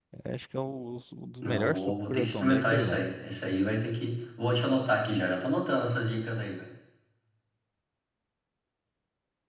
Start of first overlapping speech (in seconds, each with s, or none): 1.4 s